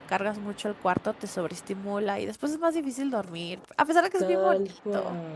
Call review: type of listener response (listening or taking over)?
taking over